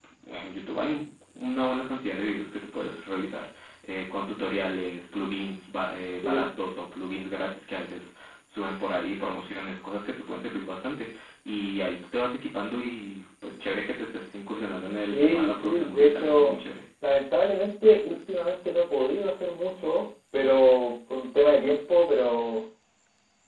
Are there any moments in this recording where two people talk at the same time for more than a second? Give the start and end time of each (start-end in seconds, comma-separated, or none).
15.0-16.6